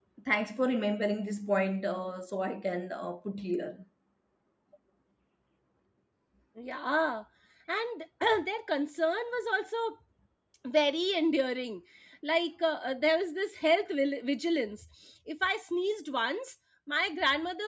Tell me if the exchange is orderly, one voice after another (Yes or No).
Yes